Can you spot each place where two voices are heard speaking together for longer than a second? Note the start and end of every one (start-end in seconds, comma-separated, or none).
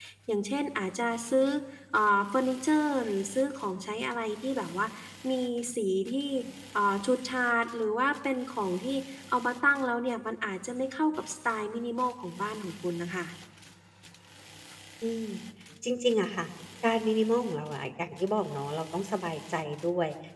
none